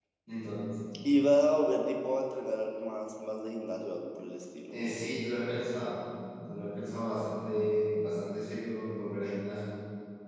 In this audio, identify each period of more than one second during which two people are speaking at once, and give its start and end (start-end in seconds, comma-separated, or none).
none